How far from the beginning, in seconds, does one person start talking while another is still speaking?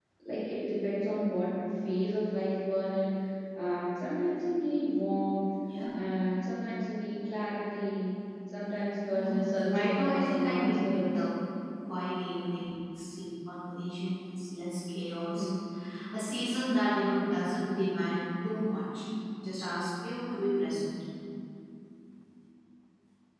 9.1 s

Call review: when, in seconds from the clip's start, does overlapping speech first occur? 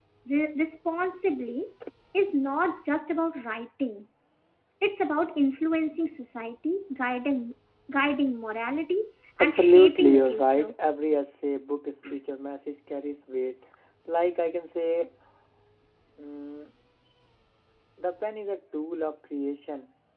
9.4 s

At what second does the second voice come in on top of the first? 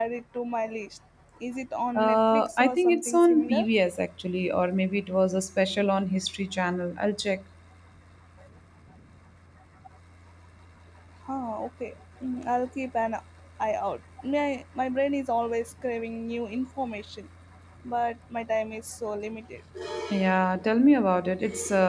2.0 s

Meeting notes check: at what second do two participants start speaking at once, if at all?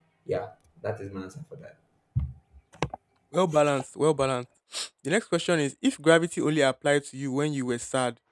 none

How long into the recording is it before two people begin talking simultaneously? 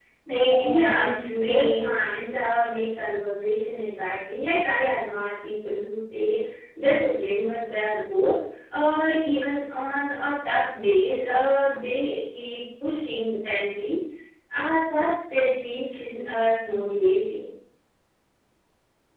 0.7 s

